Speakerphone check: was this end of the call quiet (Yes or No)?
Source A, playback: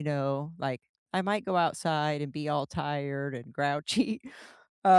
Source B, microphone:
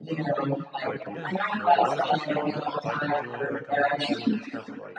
No